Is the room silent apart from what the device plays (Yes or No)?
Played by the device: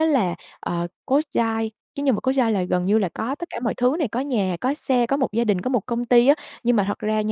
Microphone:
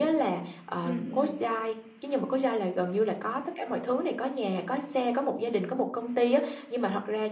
No